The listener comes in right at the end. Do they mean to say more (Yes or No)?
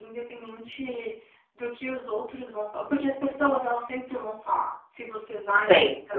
No